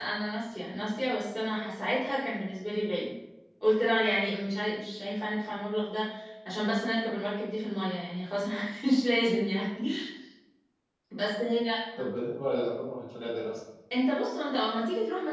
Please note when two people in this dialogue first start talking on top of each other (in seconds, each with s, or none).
none